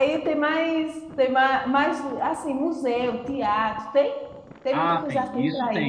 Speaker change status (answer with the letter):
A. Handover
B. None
A